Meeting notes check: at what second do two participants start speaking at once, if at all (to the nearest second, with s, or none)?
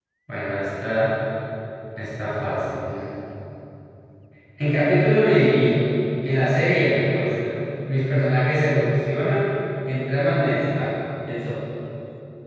none